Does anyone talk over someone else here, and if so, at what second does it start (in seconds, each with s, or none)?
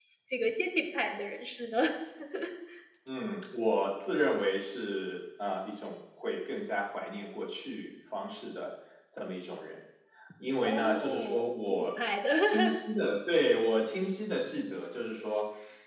10.7 s